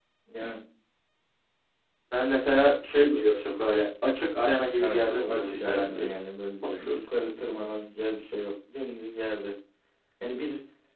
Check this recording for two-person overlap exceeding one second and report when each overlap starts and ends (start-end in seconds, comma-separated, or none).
4.8-6.1